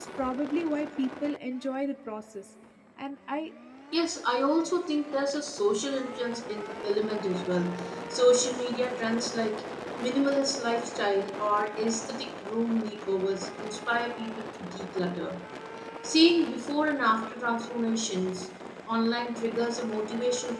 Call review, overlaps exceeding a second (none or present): none